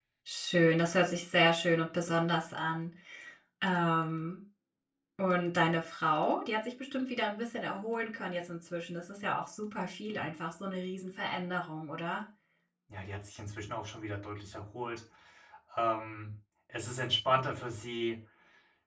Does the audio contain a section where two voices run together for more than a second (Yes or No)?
No